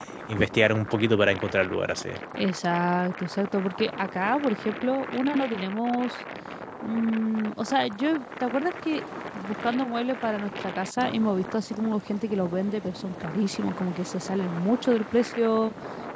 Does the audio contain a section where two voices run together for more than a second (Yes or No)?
No